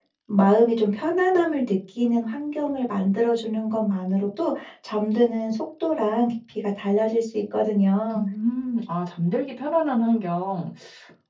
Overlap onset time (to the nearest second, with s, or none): none